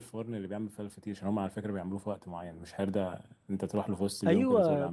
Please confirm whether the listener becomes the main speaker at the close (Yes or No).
Yes